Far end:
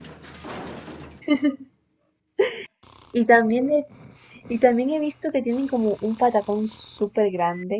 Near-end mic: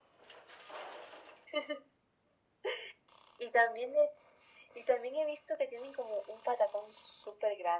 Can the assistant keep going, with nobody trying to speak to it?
Yes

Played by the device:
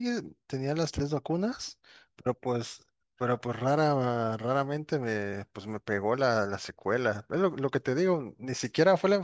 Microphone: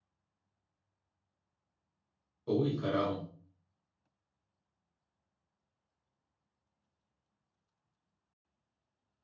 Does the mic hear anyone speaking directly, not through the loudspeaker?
Yes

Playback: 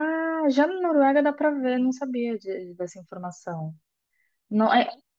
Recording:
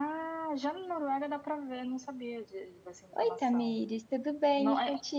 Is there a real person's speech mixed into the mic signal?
Yes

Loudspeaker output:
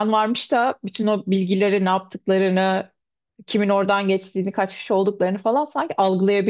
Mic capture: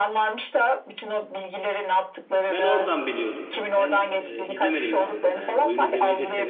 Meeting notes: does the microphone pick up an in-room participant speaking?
Yes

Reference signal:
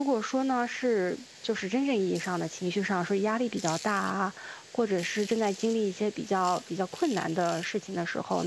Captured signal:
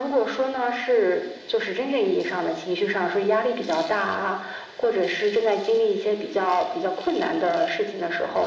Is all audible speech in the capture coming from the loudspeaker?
Yes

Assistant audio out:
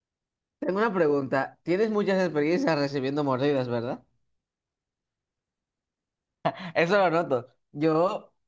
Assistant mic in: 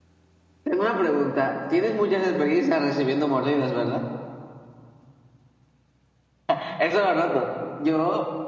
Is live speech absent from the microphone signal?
Yes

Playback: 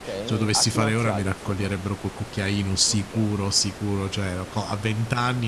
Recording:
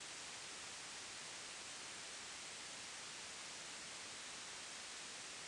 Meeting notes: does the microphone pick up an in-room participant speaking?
No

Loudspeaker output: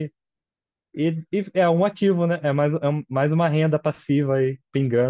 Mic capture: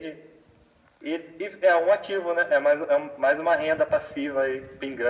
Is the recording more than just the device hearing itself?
No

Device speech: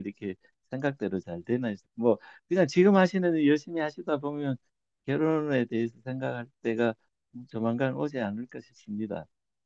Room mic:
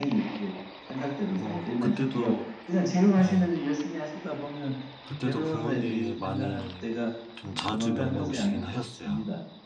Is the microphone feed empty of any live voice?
No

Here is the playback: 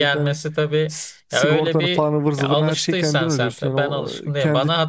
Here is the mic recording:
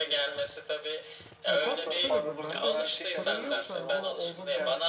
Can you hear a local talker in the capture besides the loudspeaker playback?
Yes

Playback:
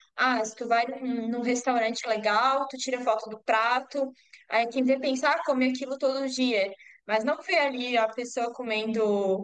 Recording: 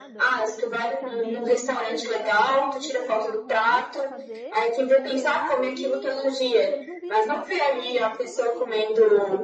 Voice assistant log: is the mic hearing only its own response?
No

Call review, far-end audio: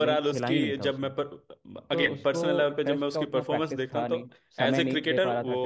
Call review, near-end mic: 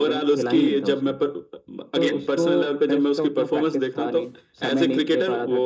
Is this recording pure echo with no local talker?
Yes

